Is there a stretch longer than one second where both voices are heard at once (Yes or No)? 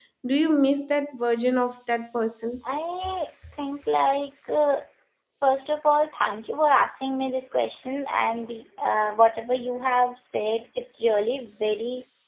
No